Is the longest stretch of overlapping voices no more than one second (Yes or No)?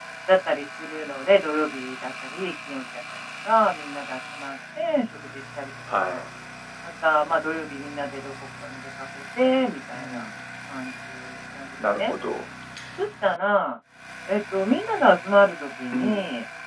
Yes